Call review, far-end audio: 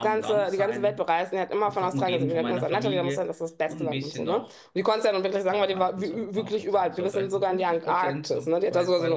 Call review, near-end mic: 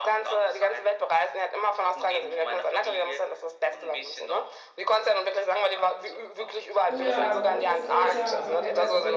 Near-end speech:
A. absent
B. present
B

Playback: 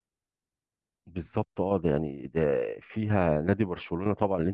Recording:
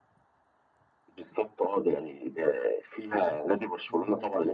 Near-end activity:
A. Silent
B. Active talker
B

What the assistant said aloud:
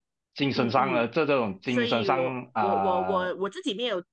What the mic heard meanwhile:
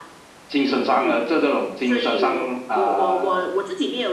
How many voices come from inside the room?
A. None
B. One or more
A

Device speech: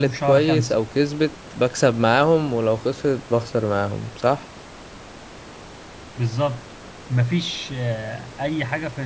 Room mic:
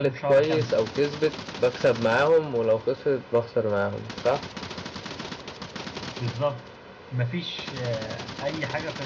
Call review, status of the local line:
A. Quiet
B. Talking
A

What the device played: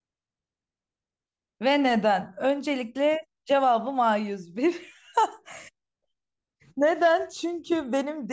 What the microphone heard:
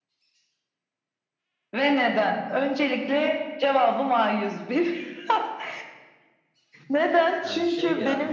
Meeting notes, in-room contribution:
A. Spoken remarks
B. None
A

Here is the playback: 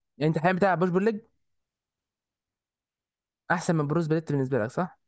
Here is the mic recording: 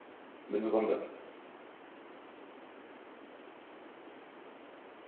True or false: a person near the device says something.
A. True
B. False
A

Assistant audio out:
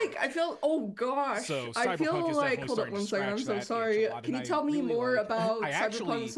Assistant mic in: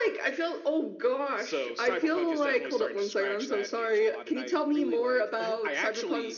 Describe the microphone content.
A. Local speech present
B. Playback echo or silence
B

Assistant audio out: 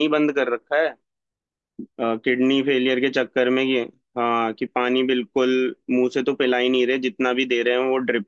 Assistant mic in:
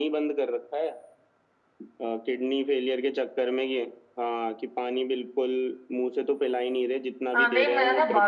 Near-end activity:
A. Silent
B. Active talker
B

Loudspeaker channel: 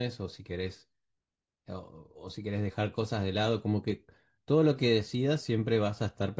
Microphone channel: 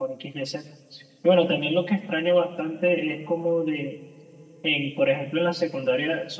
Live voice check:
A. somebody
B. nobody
A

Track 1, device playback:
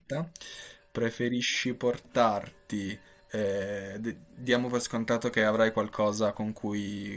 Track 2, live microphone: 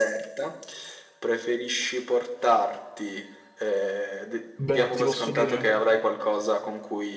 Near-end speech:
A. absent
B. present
B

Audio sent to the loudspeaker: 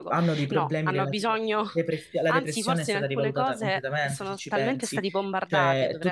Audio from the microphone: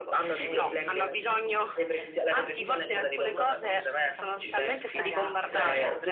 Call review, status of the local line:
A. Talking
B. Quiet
A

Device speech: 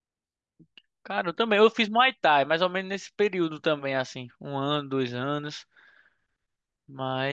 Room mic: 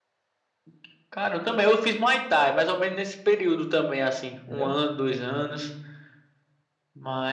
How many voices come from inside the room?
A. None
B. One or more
B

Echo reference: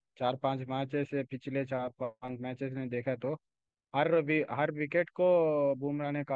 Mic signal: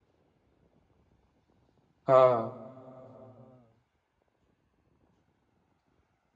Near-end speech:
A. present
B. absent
A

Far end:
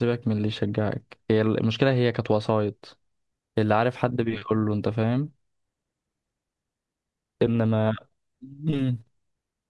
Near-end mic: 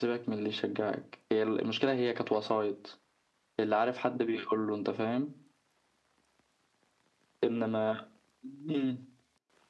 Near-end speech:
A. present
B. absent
B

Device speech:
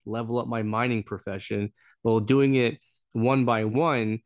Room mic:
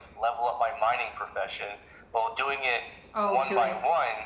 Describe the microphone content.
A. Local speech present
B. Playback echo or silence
A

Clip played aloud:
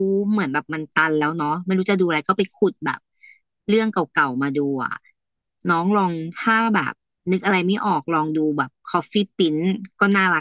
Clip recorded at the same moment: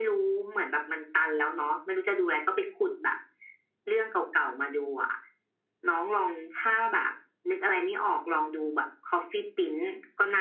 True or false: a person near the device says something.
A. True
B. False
B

